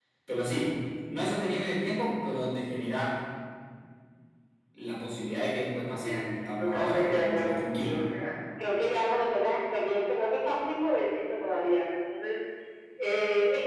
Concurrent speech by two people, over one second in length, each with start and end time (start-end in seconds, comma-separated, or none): 6.0-8.0